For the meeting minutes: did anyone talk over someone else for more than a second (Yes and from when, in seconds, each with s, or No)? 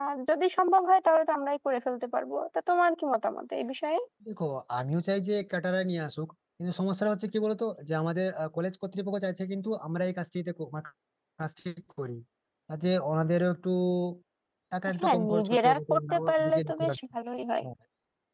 Yes, from 15.0 s